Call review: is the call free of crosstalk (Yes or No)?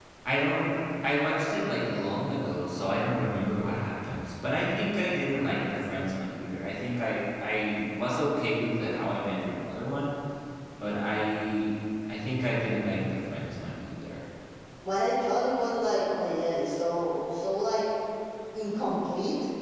Yes